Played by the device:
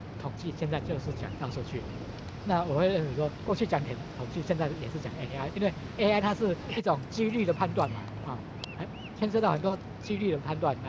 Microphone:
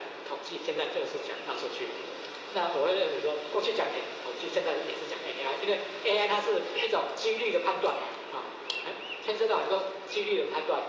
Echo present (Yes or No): Yes